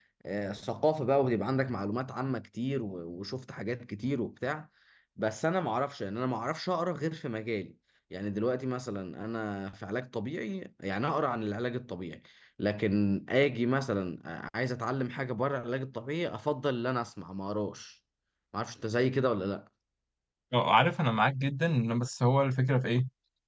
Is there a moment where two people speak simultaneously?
No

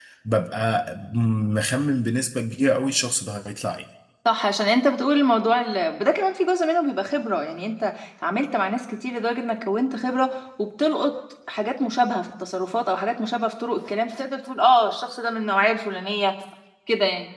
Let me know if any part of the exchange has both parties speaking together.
No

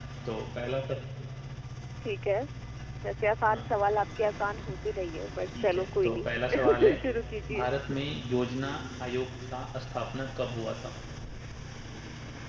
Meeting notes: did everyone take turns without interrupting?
No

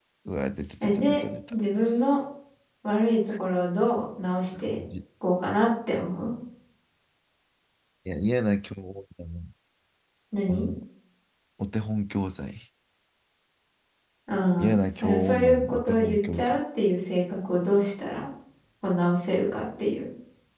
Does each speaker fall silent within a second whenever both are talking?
No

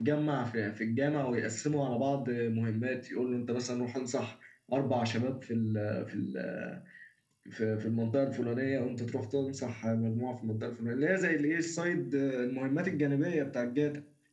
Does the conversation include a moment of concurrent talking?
No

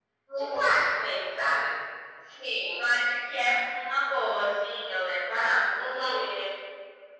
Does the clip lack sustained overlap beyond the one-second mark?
Yes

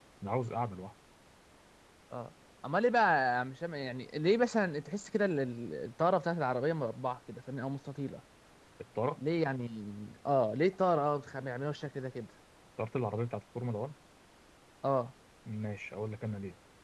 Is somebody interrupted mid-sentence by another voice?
No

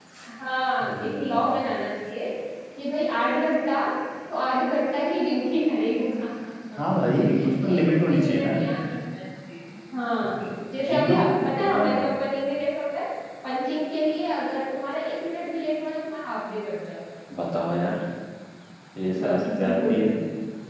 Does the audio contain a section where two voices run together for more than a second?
Yes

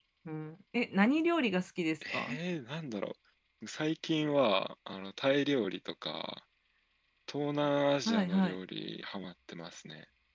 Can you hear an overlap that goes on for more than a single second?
No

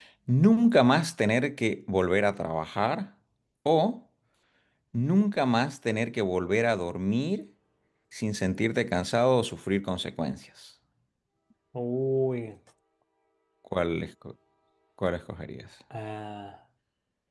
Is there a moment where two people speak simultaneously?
No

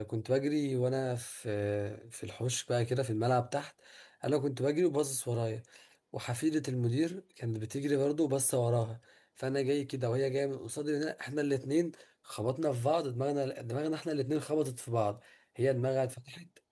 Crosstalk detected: No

